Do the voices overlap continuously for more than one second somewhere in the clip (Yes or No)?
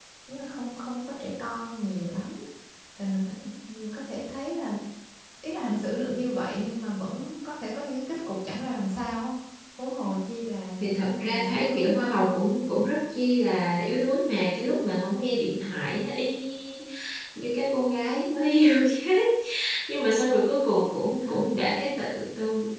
Yes